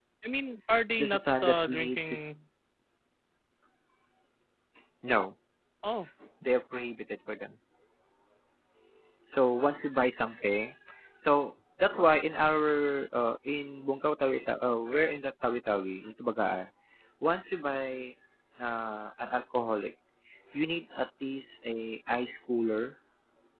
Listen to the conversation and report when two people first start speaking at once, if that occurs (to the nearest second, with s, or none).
1 s